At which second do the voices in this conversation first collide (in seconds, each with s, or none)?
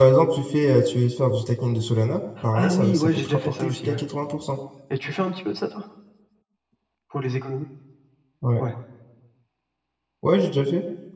2.4 s